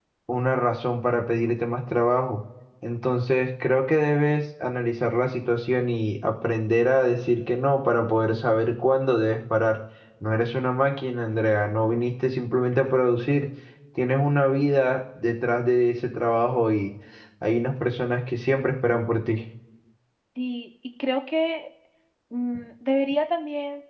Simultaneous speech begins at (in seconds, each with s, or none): none